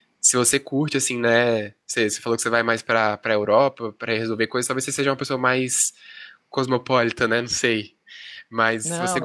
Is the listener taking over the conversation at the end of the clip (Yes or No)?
Yes